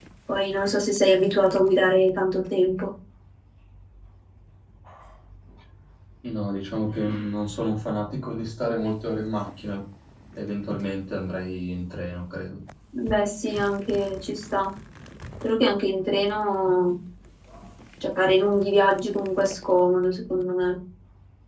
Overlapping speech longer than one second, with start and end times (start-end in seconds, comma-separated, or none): none